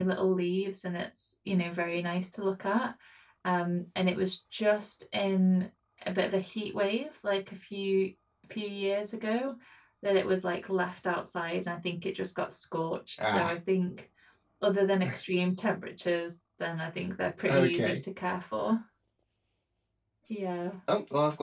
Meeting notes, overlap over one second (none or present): none